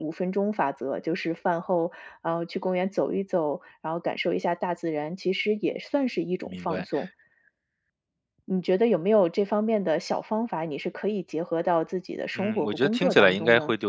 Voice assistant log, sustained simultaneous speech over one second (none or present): present